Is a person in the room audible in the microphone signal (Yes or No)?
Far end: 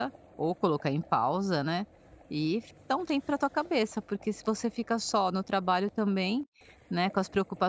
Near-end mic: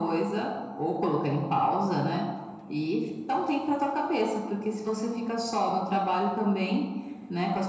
No